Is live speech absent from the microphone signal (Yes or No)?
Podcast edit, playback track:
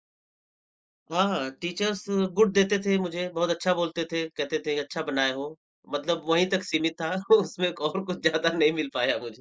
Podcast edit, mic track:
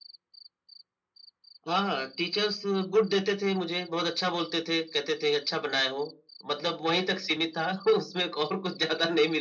Yes